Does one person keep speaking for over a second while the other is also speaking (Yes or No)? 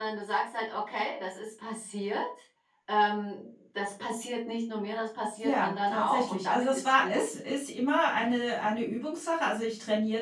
Yes